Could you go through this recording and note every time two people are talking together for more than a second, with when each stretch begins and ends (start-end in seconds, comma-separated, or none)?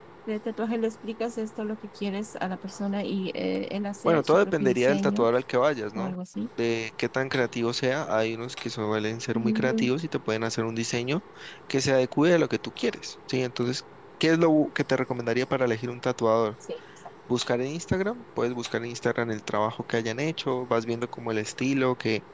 4.0-5.3